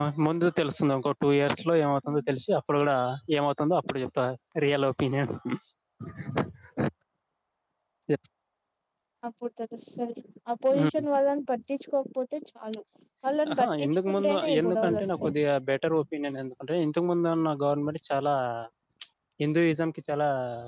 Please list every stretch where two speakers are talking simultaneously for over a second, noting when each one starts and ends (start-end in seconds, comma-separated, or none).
13.6-15.3